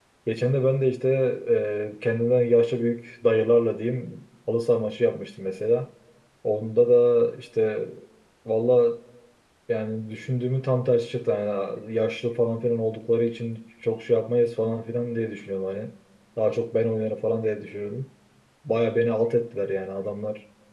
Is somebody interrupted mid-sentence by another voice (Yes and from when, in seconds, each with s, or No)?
No